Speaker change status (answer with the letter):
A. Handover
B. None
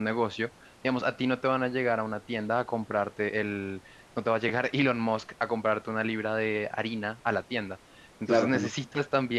B